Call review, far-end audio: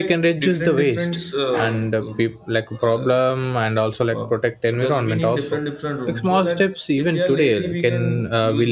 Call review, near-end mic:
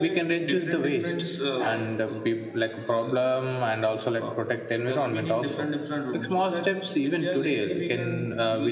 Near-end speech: none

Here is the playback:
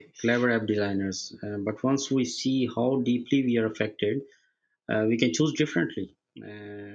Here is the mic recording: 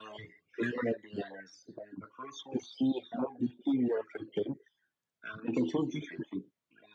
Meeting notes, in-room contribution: none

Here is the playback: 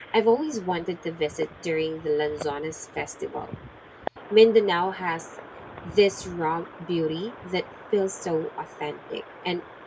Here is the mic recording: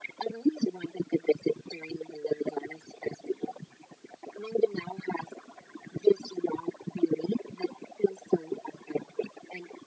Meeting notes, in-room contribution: none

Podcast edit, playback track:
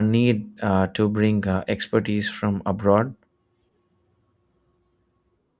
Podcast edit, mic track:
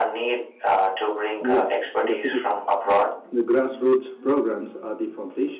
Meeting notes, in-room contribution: present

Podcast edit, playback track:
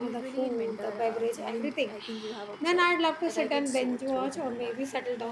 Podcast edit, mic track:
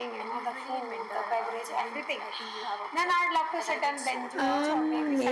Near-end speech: present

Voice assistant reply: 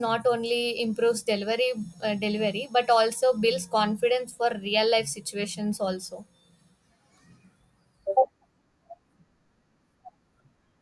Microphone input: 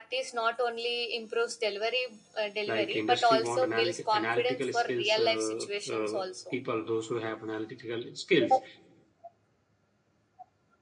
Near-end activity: present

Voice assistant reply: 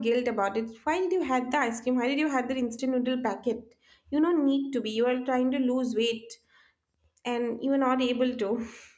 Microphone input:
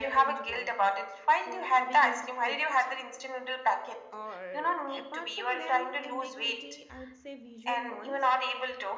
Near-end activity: present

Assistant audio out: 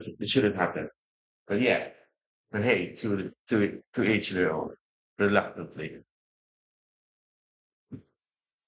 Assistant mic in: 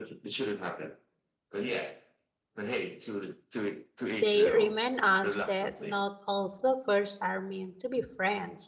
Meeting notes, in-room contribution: present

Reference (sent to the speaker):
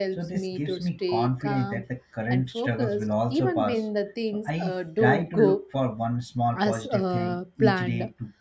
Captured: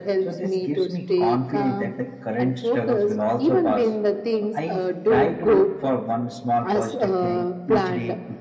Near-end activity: none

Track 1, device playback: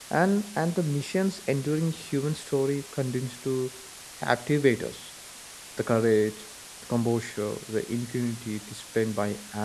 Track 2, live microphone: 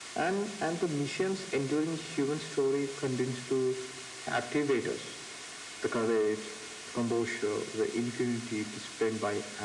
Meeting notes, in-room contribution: none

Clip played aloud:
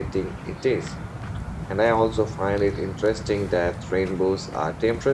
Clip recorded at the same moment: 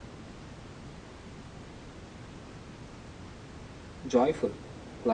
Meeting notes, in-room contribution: present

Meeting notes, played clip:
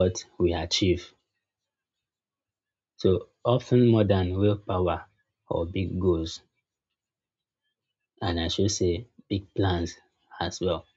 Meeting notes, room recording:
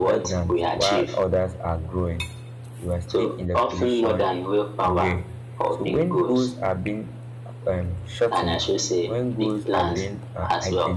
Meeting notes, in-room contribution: present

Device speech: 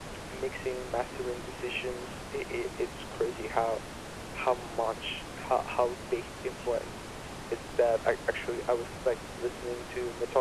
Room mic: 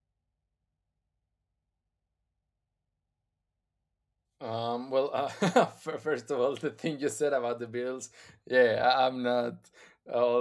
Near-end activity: present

